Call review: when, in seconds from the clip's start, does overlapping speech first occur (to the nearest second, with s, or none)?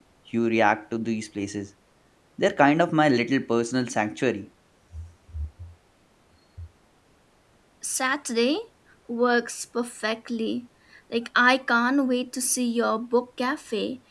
none